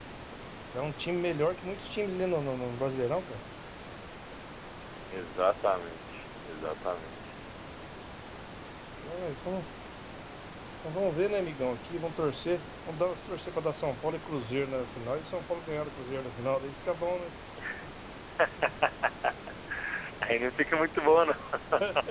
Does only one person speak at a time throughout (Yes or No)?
Yes